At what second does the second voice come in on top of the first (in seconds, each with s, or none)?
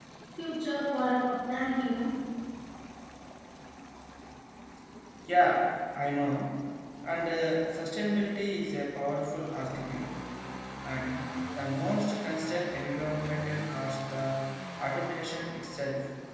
none